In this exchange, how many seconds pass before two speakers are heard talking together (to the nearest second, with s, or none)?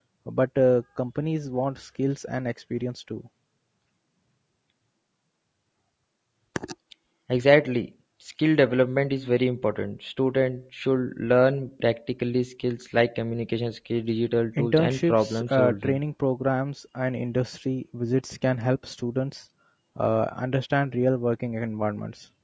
15 s